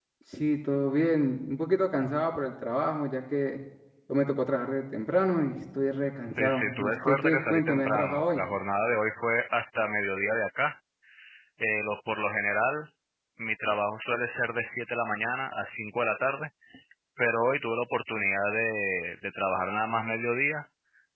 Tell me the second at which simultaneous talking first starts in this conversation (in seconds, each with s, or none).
6.4 s